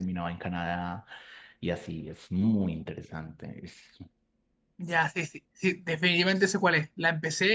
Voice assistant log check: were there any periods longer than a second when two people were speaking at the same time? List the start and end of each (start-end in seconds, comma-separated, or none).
none